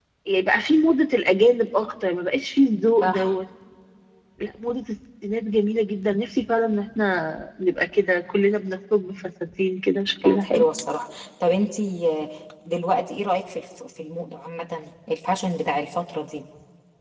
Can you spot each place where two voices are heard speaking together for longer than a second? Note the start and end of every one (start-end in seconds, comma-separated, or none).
none